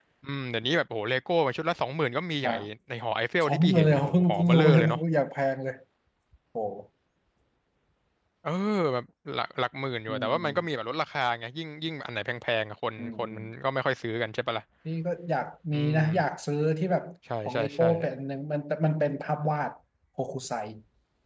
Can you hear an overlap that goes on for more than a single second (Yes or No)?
Yes